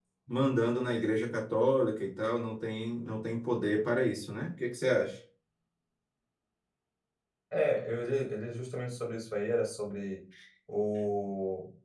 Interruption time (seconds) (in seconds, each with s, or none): none